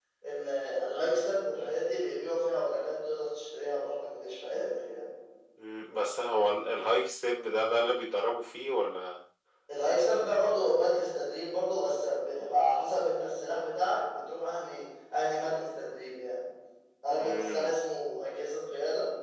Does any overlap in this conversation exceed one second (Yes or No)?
No